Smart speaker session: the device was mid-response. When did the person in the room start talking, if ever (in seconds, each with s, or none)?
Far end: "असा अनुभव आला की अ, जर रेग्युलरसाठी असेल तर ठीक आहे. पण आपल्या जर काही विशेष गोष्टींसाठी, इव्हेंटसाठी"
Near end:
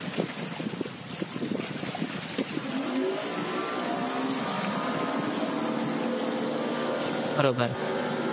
7.4 s